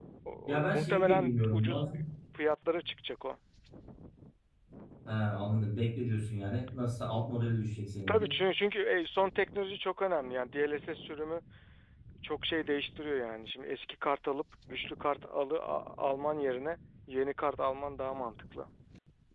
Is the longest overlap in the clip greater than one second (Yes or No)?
Yes